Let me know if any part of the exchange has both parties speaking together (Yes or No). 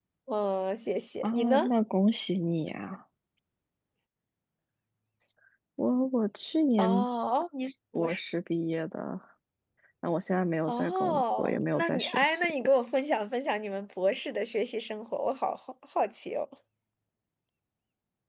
Yes